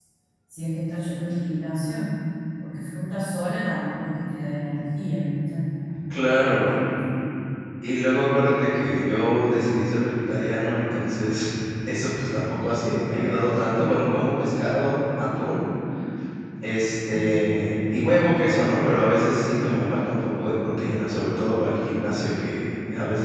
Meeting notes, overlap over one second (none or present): none